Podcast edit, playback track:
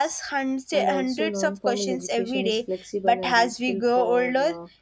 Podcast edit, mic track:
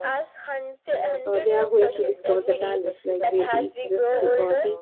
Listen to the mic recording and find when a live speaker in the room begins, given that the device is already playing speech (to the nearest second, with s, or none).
1 s